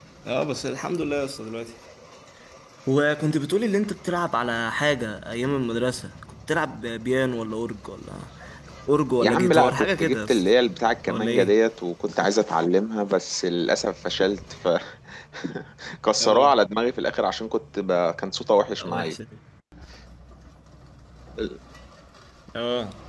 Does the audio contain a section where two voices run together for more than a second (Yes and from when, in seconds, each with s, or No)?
Yes, from 9.2 s